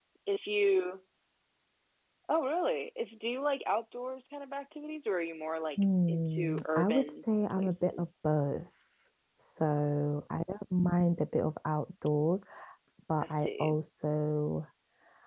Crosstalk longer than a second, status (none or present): present